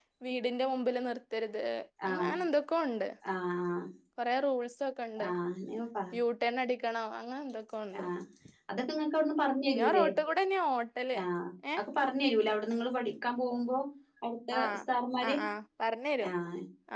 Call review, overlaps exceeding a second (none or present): none